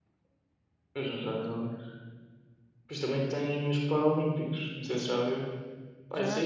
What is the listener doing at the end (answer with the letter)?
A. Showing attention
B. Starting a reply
A